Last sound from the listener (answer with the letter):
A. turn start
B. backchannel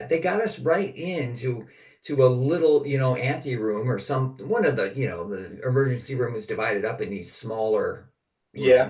B